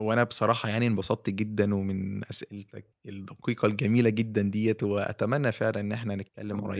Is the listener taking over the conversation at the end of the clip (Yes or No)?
No